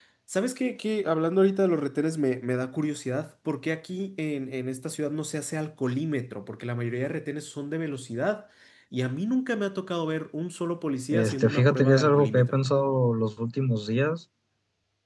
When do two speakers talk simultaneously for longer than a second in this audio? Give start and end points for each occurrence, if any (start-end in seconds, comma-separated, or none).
11.1-12.6